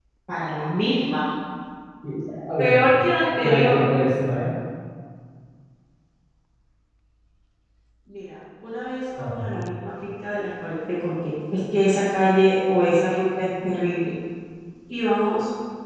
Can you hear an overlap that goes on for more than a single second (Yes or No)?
No